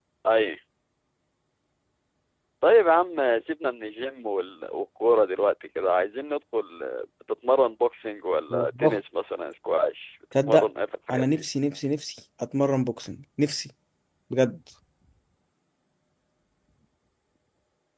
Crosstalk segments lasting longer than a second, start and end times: none

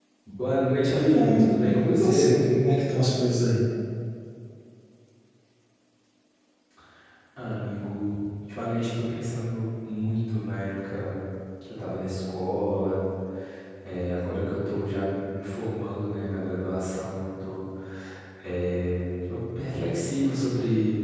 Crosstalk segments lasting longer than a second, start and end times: 0.9-2.3

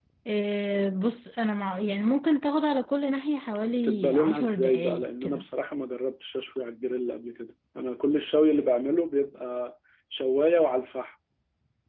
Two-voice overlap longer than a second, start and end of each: 3.6-5.4

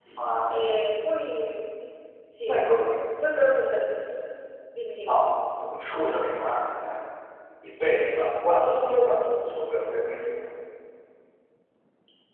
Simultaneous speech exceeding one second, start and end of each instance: none

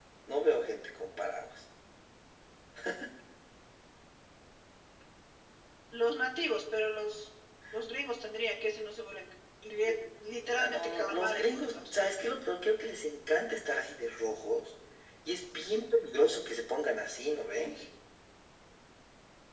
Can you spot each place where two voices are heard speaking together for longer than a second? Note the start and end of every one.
10.6-12.3

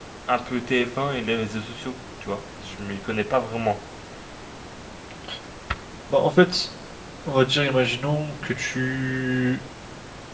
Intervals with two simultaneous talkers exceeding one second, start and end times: none

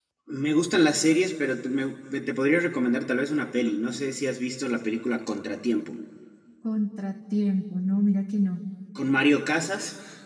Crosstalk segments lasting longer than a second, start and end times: none

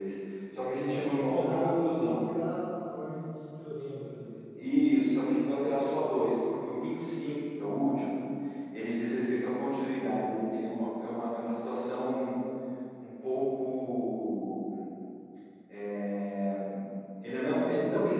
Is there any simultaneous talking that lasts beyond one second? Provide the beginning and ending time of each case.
0.9-2.2

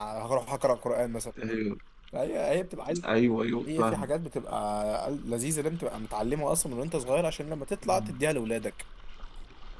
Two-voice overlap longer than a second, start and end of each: none

